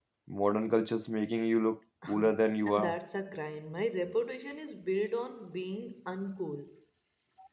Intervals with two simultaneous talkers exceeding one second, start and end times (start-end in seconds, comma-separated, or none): none